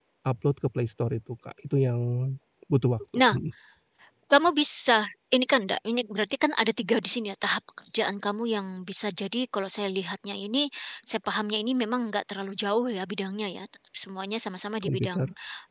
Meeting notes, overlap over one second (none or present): none